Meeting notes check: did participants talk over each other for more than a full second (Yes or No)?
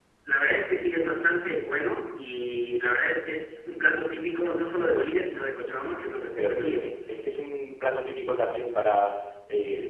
No